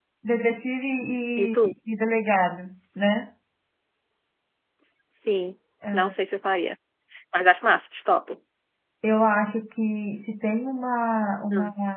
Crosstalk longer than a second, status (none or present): none